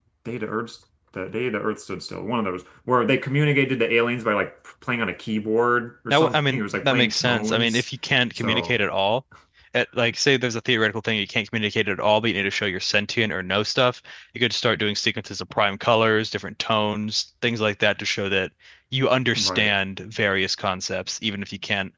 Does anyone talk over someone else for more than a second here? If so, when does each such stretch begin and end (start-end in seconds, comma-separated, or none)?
6.1-7.8